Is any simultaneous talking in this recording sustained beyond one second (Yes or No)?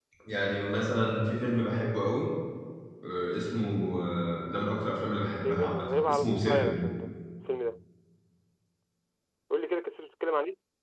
Yes